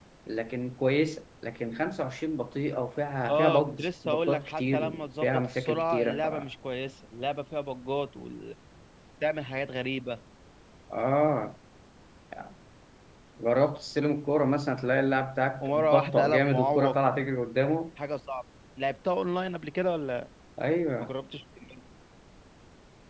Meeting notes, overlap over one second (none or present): present